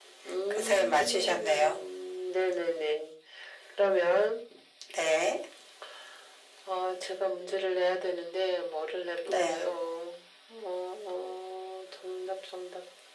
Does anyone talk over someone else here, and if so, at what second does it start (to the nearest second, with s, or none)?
1 s